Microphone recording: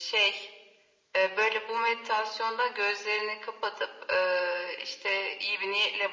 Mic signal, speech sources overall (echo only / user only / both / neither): echo only